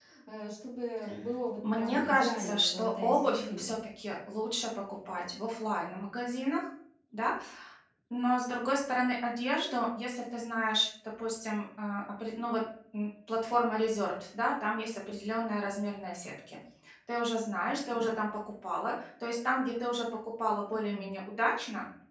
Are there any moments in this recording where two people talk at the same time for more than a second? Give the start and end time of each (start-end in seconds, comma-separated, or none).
1.7-3.8